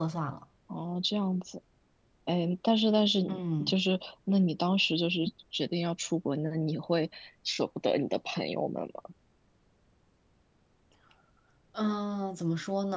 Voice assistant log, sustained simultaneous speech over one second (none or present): none